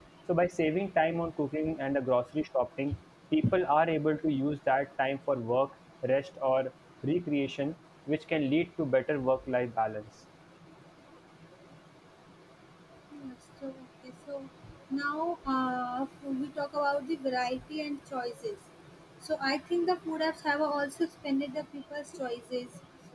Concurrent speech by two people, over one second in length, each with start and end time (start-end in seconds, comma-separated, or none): none